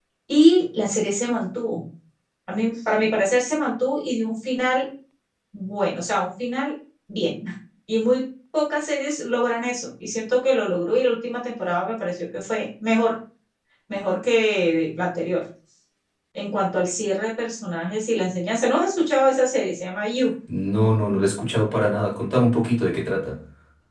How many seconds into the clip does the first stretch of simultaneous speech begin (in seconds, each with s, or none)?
none